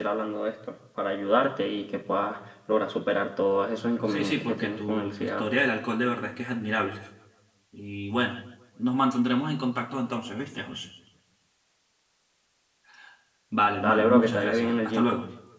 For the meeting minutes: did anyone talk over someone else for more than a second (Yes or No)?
Yes